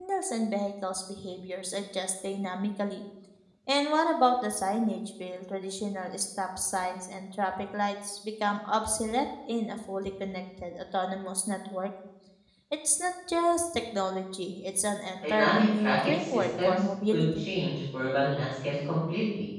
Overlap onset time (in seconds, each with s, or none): 15.2 s